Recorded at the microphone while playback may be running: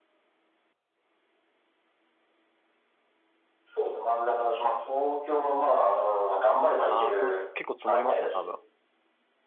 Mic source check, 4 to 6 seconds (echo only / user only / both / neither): echo only